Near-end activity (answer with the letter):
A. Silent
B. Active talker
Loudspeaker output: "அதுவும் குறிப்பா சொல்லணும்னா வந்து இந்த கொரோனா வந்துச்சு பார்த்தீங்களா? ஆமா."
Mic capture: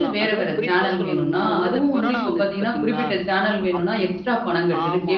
B